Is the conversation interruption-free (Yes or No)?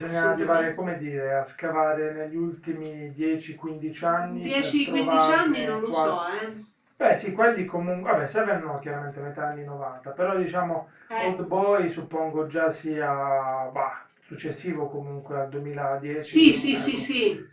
No